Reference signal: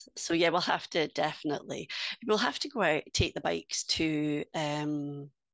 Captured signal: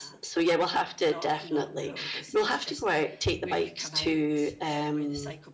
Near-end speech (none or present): present